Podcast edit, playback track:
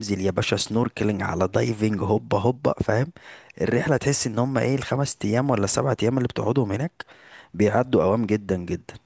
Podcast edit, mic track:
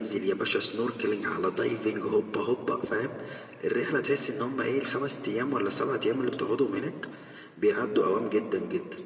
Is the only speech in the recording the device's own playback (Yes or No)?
Yes